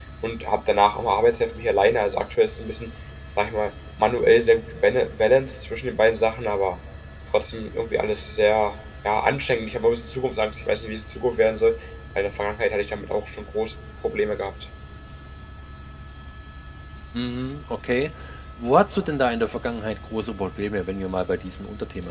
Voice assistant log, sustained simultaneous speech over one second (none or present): none